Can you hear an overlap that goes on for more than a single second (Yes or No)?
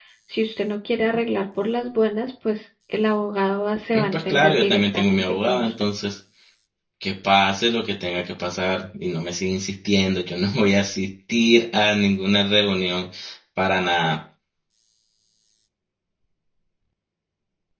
Yes